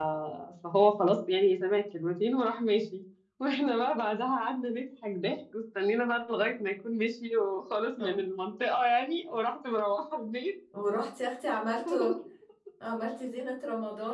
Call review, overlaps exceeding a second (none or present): none